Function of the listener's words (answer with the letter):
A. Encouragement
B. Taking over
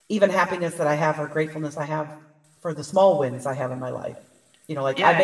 A